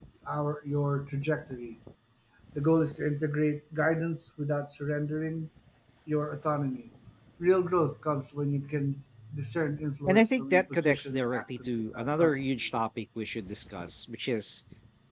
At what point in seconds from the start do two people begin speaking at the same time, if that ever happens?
10.1 s

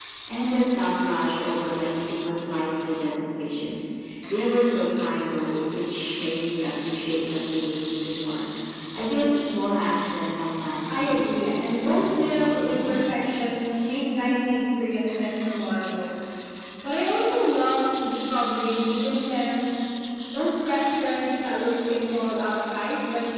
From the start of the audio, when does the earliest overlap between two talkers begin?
10.9 s

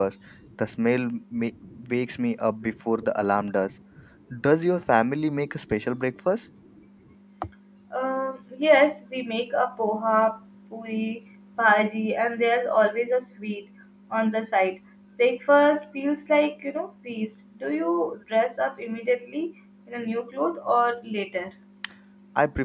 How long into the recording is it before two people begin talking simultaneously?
none

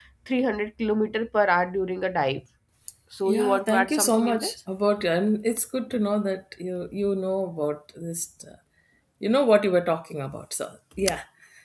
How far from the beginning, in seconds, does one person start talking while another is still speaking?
3.2 s

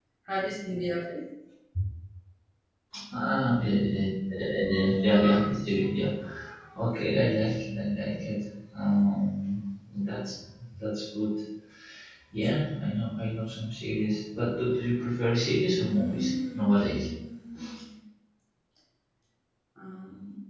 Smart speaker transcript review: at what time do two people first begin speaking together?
15.8 s

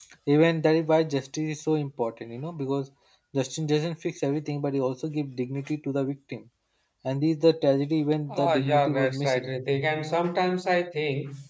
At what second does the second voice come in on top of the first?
8.3 s

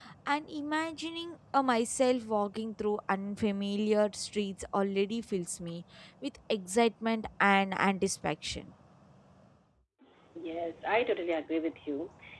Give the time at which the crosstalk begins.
none

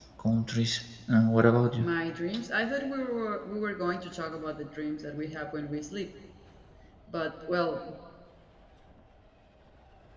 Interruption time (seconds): none

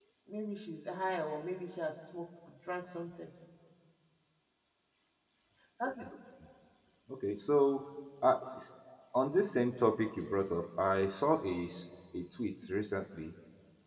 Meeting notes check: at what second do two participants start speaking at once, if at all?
none

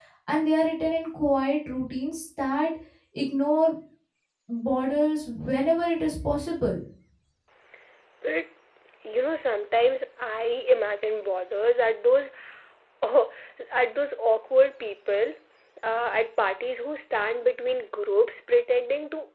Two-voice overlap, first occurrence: none

